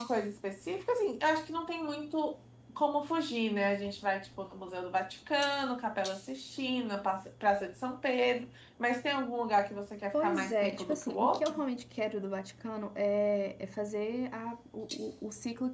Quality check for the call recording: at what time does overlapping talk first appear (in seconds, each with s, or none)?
10.1 s